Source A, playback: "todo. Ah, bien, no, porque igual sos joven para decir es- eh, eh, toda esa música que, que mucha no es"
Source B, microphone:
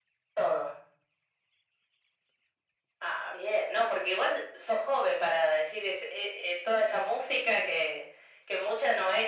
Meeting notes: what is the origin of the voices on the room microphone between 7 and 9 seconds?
echo only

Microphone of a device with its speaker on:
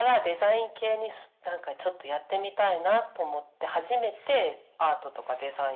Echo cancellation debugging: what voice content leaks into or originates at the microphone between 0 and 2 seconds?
echo only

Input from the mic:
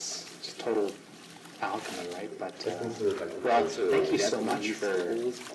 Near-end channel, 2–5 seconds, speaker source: both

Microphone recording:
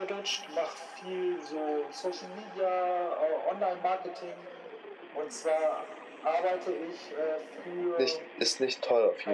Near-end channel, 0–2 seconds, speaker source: echo only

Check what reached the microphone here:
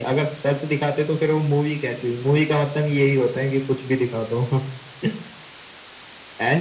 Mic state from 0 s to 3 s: echo only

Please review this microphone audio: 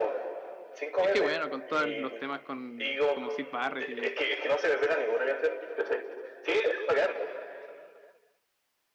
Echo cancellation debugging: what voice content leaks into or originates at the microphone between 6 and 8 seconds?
echo only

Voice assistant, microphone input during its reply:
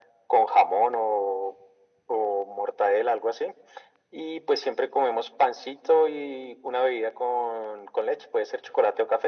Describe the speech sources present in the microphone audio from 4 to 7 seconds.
echo only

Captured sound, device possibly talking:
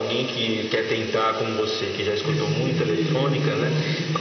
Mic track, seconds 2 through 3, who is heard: both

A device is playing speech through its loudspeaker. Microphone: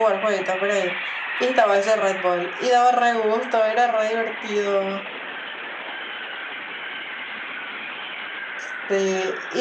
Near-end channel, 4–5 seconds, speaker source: echo only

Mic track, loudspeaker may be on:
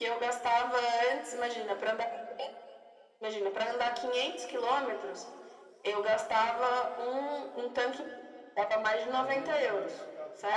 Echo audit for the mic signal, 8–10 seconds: both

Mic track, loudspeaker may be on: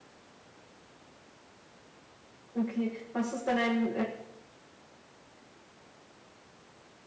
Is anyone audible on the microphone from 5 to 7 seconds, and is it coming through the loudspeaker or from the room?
neither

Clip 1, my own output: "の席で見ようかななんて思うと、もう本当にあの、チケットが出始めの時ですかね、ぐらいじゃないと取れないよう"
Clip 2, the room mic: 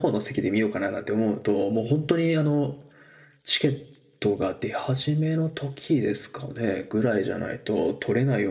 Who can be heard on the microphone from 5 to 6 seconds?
echo only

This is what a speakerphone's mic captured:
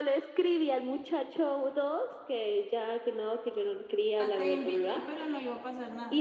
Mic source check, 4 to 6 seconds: both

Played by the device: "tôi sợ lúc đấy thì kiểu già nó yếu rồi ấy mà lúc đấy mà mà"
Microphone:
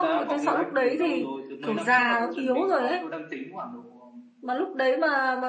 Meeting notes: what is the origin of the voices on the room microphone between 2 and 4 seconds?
both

